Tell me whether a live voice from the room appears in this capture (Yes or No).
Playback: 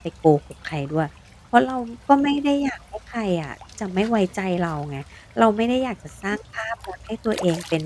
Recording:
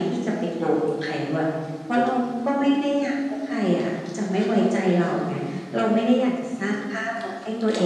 No